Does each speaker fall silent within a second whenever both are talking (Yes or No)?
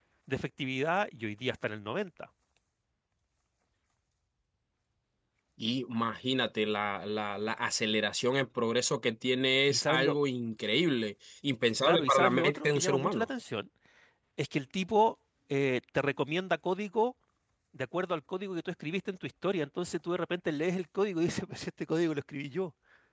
No